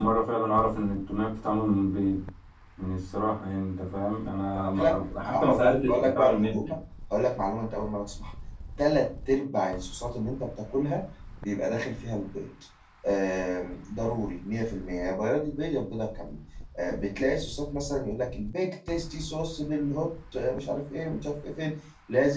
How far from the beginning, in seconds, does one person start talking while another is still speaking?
4.8 s

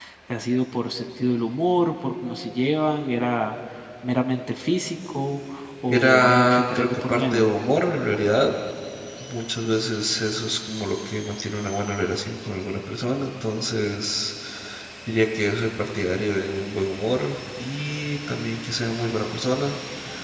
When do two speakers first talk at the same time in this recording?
5.9 s

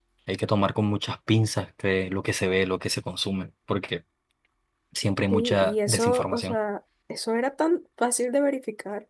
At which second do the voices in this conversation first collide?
5.3 s

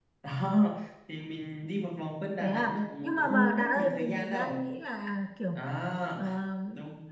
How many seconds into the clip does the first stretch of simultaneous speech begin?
2.4 s

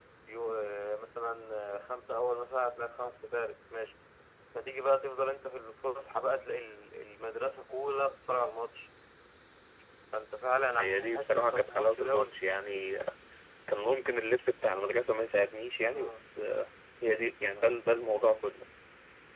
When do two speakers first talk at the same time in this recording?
10.8 s

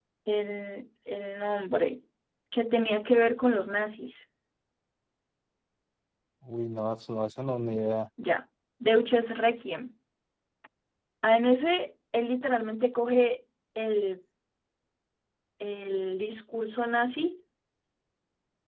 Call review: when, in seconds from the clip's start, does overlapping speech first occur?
none

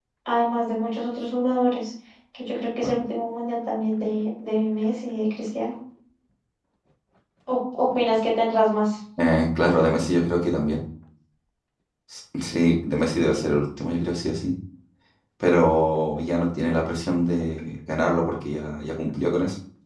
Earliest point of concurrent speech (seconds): none

